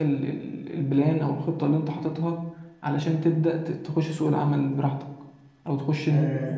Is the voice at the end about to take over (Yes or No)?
Yes